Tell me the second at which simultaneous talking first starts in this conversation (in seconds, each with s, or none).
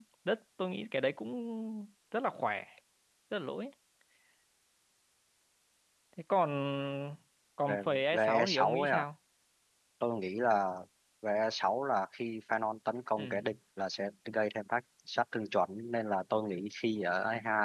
7.7 s